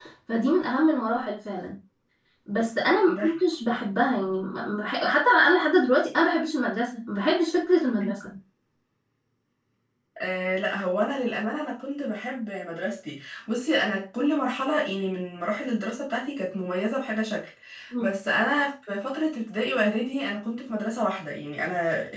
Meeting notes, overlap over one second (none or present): none